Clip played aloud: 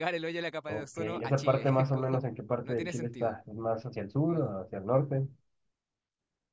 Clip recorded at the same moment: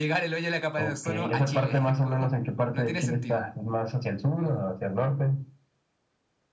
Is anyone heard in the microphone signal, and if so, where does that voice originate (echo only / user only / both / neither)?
echo only